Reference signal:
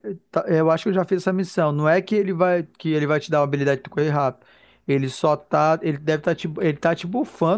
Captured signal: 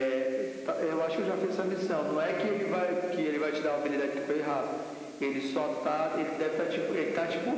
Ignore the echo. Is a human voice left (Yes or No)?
No